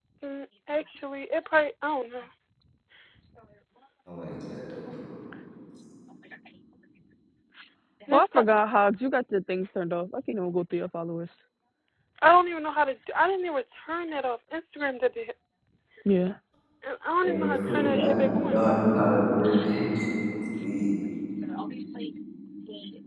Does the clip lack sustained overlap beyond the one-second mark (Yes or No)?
No